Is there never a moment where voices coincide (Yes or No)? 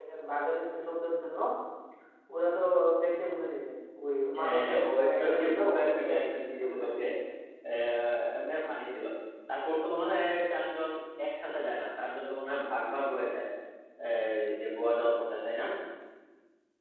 No